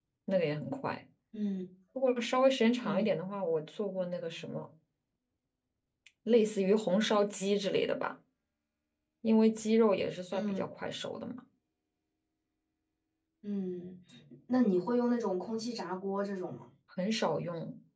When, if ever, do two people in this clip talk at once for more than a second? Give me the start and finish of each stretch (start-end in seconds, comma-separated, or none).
none